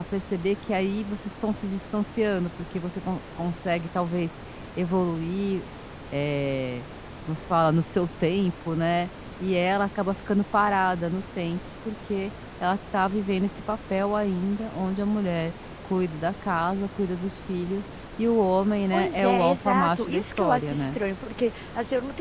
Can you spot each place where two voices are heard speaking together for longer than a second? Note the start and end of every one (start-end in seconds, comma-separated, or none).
18.9-21.0